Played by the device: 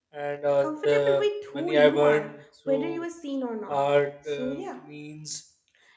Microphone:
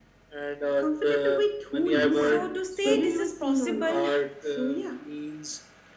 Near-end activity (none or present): present